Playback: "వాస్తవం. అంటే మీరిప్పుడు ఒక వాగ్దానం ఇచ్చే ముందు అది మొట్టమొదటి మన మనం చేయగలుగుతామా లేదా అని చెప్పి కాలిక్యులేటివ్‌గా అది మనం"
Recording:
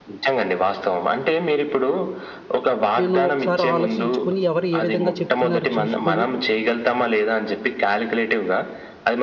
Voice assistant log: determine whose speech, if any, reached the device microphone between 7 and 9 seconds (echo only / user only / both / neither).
echo only